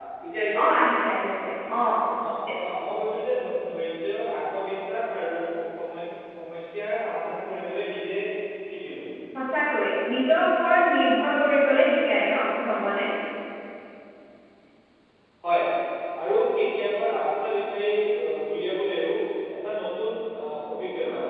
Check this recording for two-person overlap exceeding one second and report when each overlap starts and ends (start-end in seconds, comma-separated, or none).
none